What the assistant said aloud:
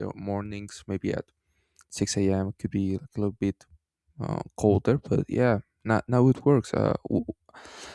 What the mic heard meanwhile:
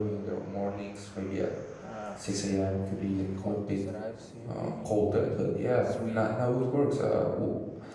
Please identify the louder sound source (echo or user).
echo